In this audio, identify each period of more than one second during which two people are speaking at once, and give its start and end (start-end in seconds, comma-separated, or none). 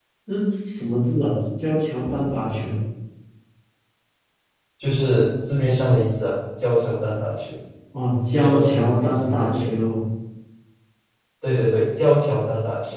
8.3-9.8